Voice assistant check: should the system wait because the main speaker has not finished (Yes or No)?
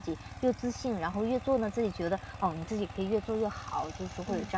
Yes